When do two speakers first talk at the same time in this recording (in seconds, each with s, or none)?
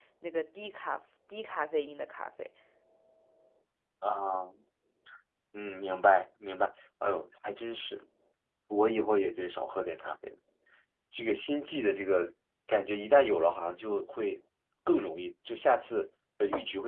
none